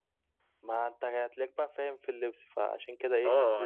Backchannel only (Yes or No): No